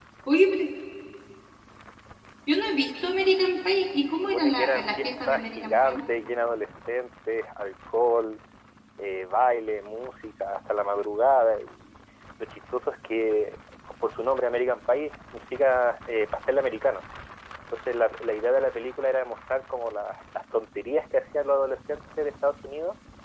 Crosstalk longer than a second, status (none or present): present